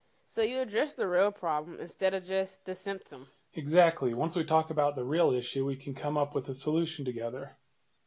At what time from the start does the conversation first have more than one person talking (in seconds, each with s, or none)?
none